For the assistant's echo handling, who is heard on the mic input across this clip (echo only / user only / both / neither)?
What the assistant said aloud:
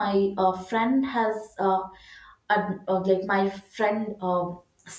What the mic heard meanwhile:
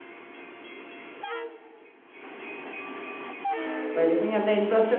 user only